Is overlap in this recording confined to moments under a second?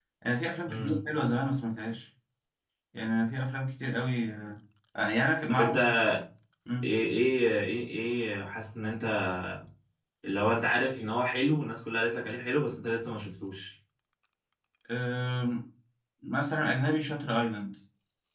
Yes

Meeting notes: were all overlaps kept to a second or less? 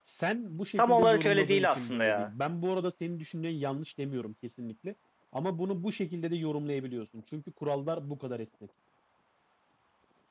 No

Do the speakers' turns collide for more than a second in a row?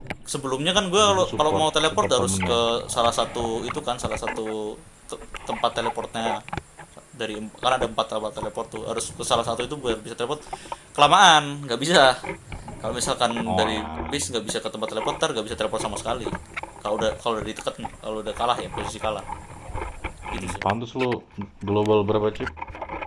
Yes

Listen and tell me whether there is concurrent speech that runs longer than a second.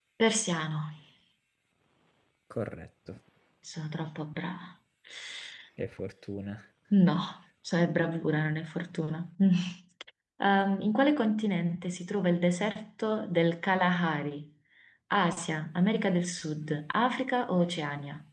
No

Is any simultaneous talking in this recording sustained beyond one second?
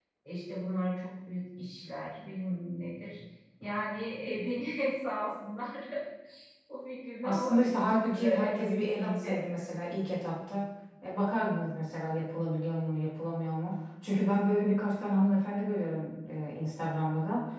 Yes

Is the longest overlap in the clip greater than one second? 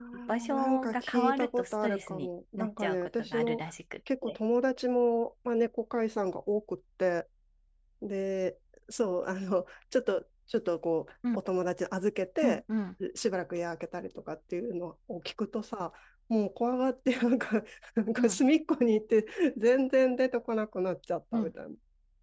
Yes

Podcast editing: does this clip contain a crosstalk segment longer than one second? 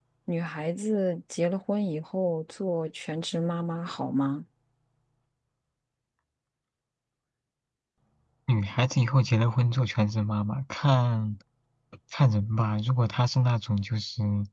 No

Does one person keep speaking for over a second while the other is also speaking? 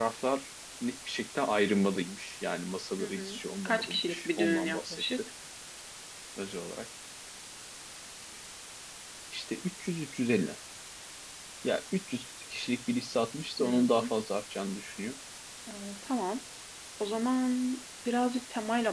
Yes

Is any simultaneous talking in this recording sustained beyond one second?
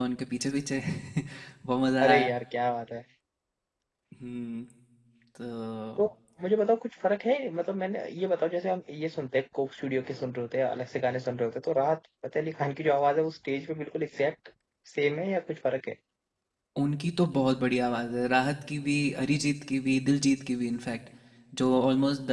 No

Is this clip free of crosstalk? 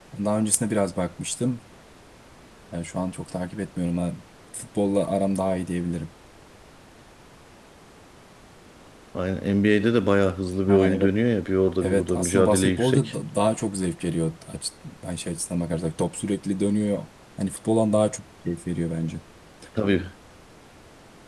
No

